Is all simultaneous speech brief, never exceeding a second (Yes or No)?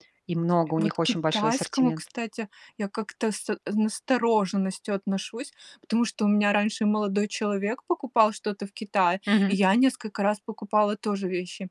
No